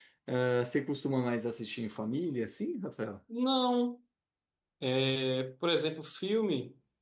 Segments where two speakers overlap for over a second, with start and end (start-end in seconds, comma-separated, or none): none